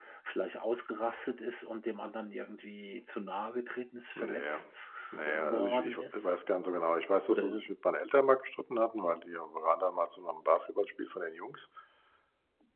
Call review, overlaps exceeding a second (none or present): present